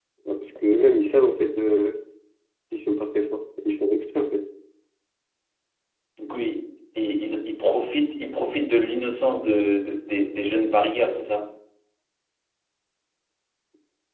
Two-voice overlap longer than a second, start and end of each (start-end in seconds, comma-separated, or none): none